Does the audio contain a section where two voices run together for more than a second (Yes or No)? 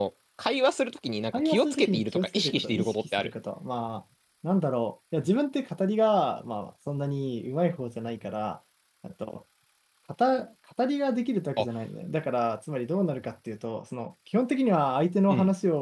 Yes